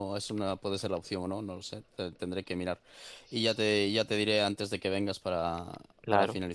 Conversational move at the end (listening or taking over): taking over